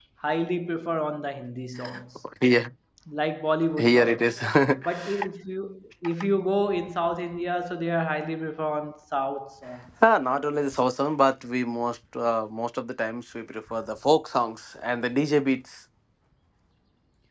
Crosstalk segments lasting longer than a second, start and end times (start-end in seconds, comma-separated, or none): none